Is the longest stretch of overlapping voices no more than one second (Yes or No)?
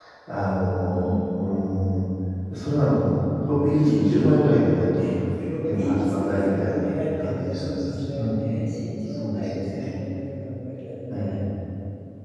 No